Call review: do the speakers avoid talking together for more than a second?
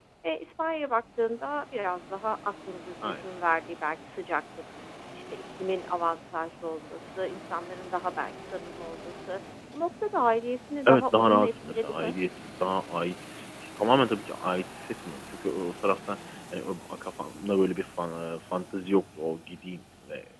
No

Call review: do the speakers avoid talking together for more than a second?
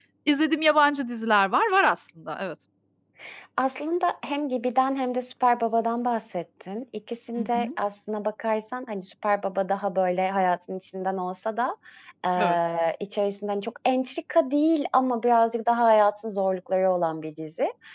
Yes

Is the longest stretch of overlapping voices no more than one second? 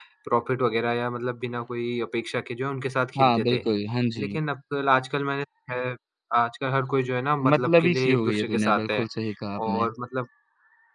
No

